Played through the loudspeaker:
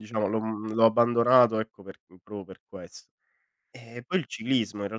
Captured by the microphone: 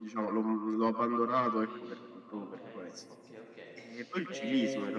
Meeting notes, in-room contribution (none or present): present